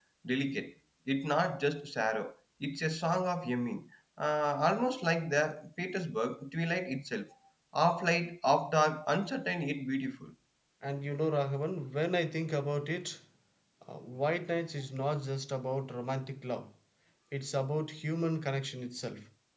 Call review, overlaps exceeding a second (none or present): none